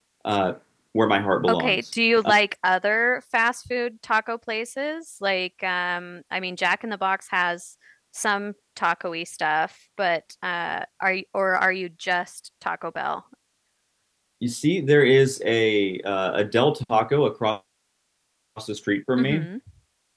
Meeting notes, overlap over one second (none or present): none